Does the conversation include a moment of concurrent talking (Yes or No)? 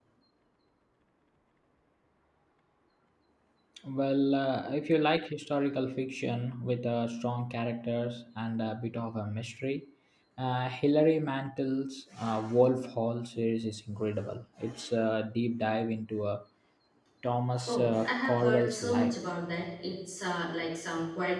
Yes